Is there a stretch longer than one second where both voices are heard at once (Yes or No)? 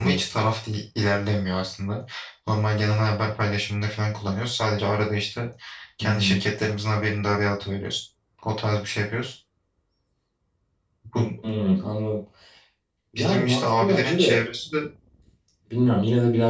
Yes